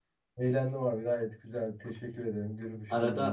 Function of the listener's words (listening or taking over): taking over